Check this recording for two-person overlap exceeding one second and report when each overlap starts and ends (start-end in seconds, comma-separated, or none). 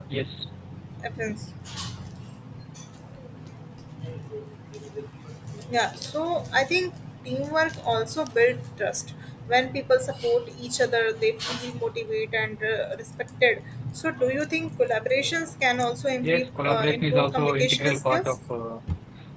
16.2-18.4